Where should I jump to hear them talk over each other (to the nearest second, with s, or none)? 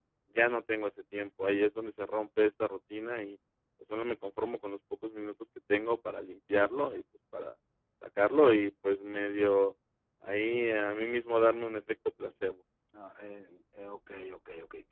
none